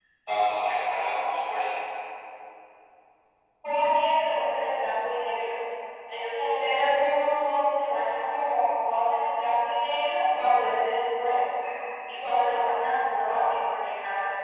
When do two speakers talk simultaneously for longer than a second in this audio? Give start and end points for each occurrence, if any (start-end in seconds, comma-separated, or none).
none